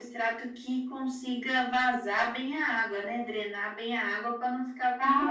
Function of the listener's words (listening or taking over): taking over